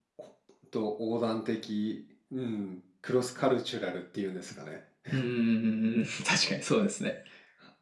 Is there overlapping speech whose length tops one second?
No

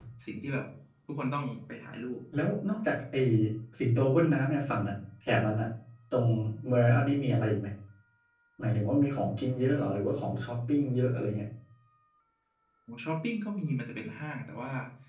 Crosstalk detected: No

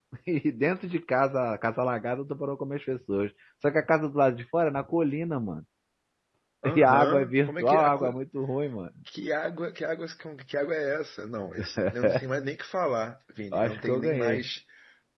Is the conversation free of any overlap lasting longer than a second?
No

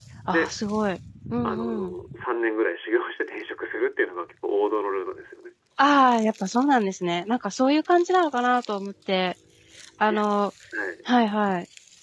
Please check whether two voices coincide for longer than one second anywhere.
No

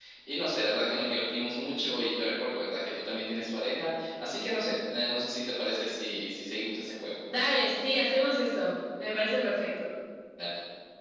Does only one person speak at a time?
Yes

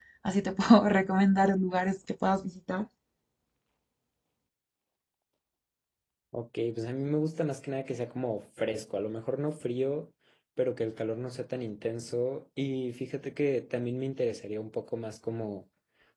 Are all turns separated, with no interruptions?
Yes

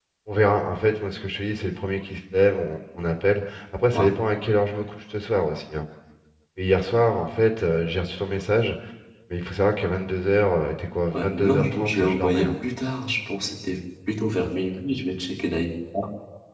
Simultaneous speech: Yes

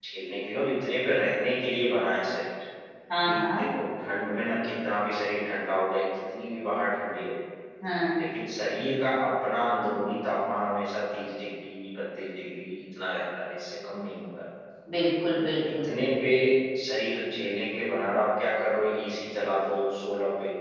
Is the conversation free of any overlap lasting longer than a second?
Yes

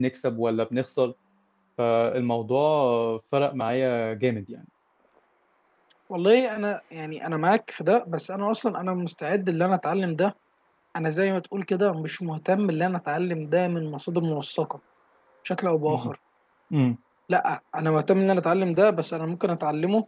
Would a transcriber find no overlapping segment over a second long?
Yes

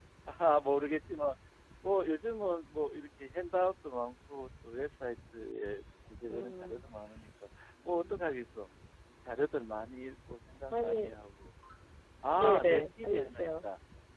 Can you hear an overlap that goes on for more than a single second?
Yes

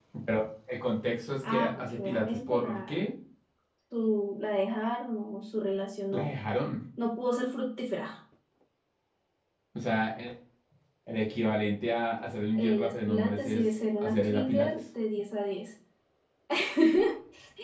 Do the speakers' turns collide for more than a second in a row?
Yes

